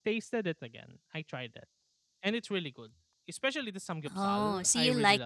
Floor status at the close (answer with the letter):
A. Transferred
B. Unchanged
A